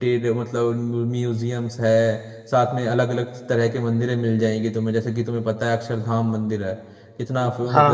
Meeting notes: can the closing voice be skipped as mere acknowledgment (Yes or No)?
No